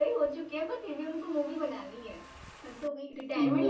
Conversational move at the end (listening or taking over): taking over